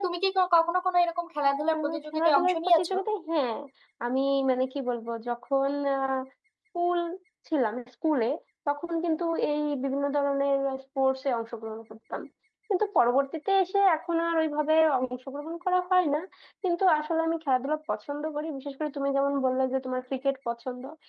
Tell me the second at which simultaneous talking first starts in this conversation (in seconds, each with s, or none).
1.7 s